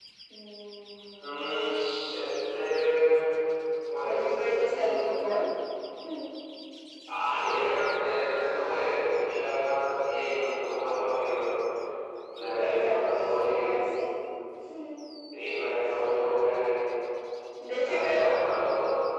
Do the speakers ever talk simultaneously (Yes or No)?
Yes